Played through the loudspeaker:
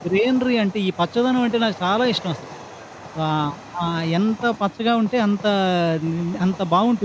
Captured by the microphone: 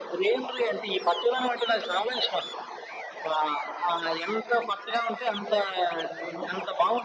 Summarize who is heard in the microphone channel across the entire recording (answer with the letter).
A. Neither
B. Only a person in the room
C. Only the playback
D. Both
C